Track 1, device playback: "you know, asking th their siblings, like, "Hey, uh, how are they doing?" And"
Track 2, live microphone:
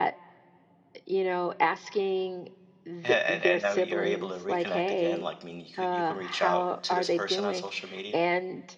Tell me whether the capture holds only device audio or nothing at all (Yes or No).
No